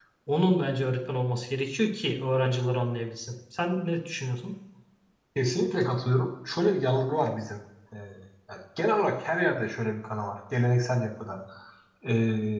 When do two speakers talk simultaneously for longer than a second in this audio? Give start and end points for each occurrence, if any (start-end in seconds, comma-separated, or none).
none